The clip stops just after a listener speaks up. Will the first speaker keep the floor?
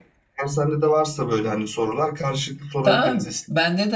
No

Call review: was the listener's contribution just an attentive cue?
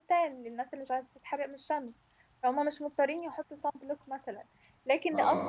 Yes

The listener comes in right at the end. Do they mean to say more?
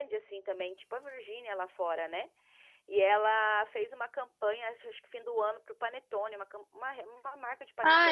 Yes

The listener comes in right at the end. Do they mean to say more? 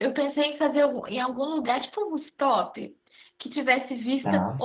No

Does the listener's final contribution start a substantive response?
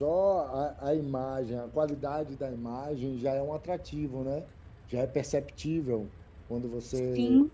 No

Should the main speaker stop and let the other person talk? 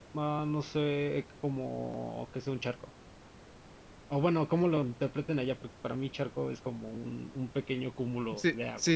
Yes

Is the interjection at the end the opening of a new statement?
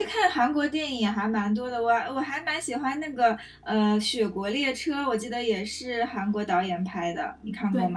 Yes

